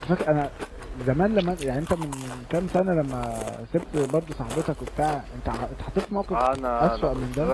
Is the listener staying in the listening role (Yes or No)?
No